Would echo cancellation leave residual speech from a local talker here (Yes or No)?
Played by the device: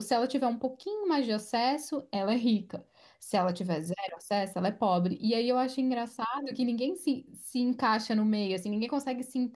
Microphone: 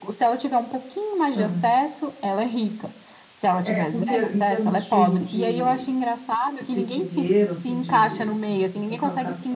Yes